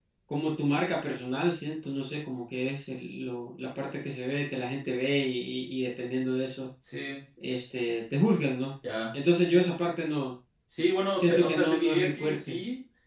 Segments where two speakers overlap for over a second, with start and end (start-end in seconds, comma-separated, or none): 11.1-12.6